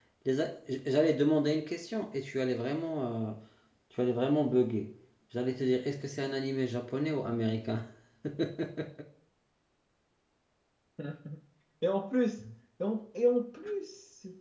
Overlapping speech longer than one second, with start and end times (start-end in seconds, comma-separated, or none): none